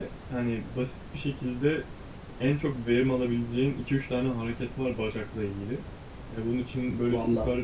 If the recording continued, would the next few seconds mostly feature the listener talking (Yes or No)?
No